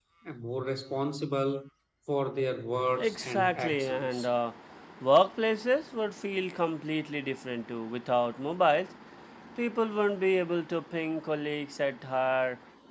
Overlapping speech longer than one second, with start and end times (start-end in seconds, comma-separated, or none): 3.0-4.3